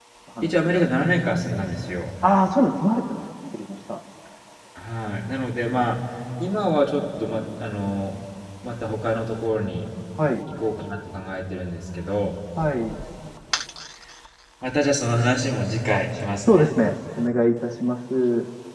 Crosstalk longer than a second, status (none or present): none